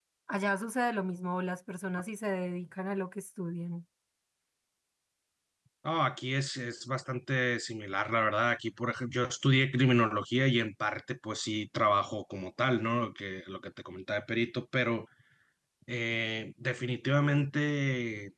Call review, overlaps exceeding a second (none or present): none